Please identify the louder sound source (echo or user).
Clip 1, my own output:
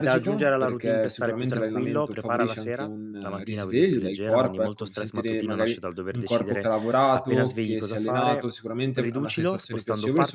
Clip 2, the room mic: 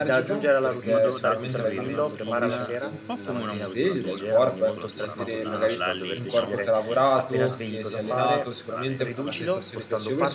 echo